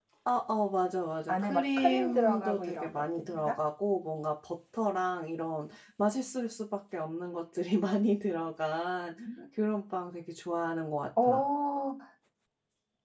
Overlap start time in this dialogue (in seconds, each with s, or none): 1.3 s